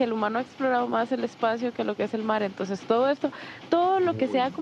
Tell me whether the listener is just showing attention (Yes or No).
Yes